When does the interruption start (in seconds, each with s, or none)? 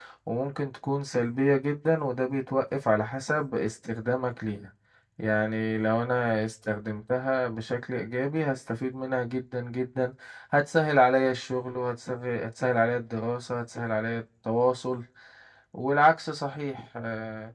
none